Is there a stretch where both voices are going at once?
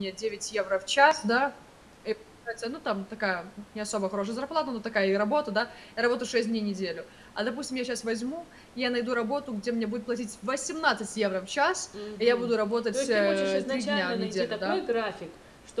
Yes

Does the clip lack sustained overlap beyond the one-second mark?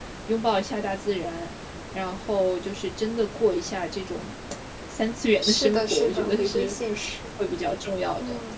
No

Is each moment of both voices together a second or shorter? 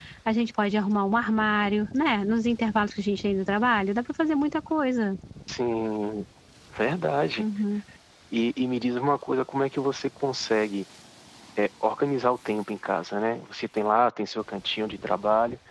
Yes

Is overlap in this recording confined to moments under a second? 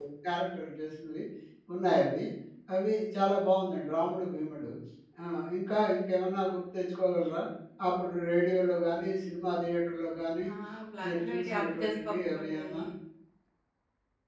No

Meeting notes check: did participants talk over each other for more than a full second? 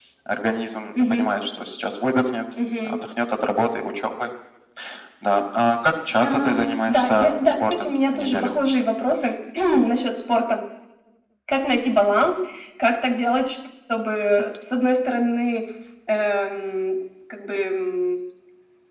Yes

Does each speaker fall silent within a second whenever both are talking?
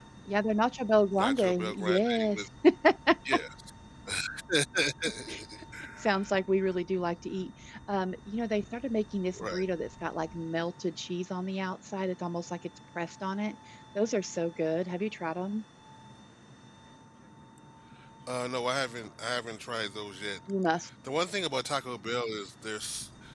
No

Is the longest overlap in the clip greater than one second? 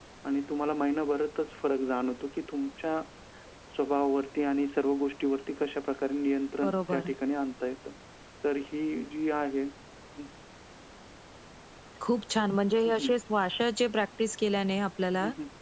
No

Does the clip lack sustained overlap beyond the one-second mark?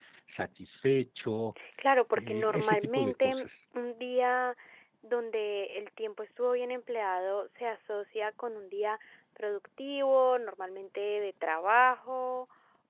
No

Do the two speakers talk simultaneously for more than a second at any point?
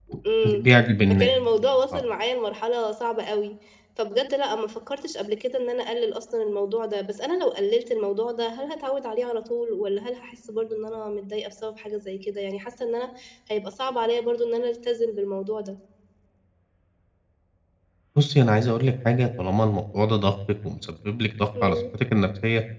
No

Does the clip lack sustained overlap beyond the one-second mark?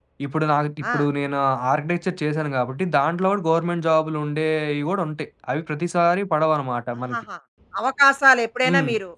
Yes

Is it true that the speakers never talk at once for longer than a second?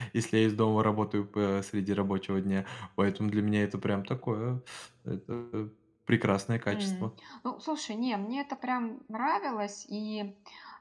Yes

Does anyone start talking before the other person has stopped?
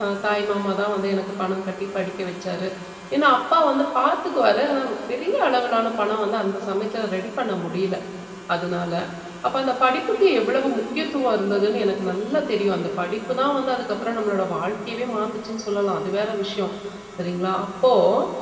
No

